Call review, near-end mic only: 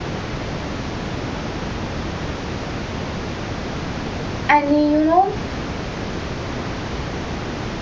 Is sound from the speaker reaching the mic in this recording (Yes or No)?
No